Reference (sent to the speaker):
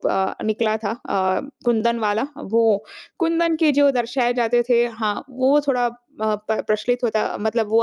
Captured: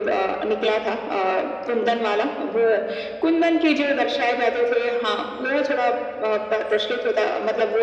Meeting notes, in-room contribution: none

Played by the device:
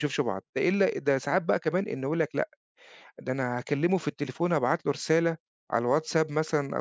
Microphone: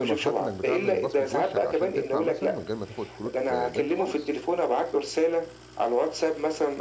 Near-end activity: present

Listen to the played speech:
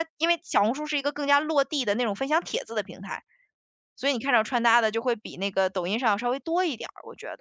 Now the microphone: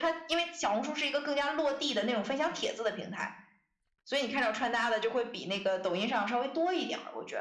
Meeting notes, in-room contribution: none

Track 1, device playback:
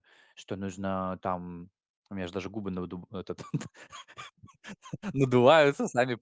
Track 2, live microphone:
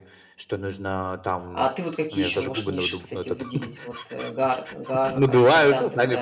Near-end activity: present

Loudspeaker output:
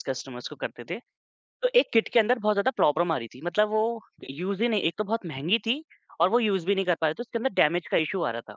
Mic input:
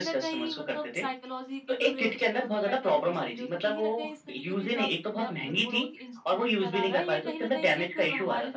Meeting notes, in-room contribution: present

